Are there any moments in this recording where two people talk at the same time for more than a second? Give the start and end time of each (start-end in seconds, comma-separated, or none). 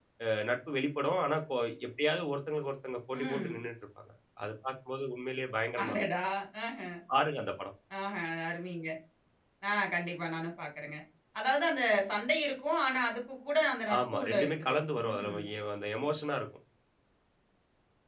14.0-15.4